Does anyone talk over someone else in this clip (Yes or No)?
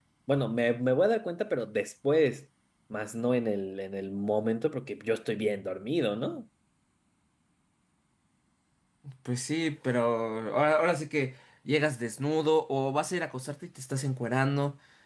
No